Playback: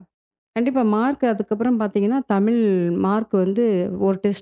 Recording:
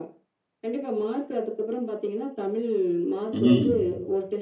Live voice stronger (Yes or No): Yes